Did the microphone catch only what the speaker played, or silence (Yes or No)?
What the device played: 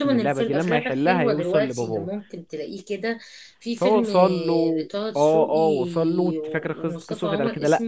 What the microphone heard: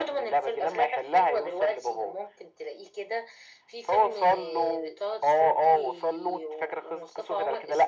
Yes